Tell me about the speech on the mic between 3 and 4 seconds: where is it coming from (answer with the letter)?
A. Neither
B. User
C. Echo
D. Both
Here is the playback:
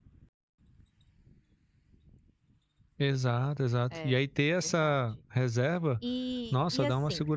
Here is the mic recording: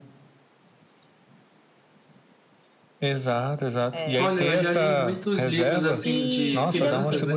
C